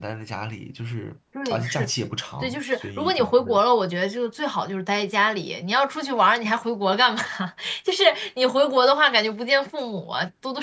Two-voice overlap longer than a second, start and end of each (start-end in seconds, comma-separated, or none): 2.4-3.6